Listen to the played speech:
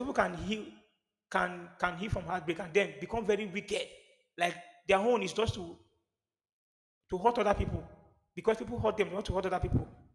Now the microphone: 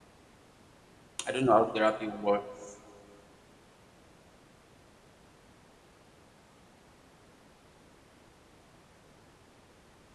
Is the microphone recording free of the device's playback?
Yes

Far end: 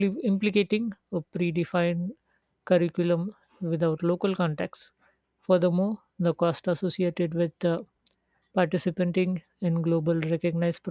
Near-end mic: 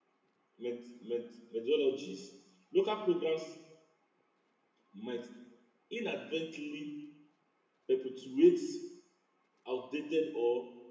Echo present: No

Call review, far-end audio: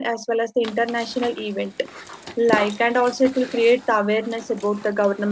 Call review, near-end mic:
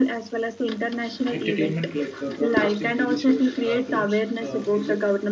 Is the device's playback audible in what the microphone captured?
Yes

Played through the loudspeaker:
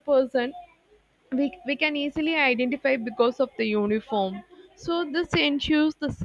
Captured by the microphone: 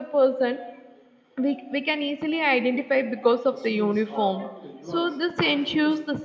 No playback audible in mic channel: No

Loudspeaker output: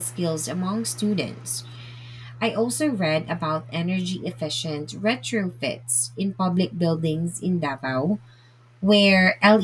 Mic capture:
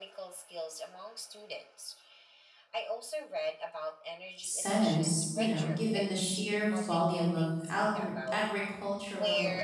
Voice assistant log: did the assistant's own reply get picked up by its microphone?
Yes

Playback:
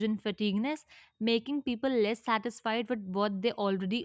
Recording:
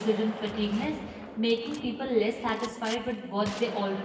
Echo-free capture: No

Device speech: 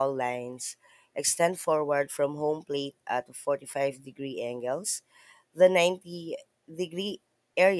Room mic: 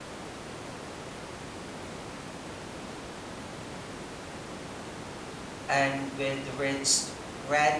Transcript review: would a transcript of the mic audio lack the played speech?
Yes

